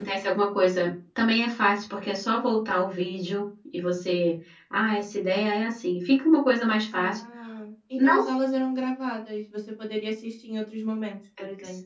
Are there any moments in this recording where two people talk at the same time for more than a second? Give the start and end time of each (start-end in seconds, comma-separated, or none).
none